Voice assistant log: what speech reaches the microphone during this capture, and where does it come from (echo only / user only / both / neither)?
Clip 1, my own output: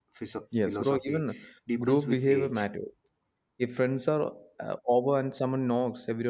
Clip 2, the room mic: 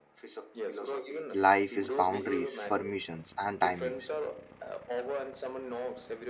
both